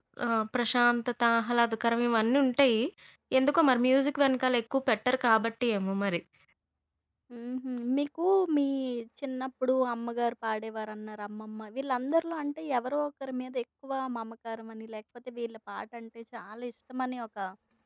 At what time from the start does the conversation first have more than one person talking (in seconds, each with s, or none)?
none